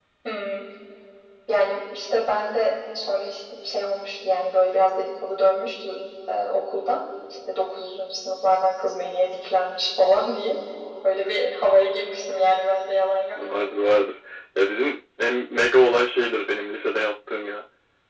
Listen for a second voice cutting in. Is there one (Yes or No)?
No